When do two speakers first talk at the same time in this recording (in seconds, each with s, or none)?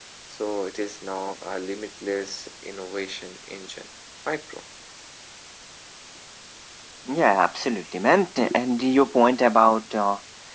none